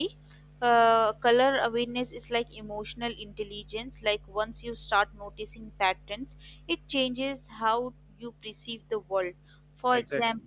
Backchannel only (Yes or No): No